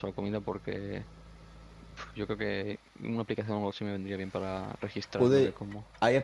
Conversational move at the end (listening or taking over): taking over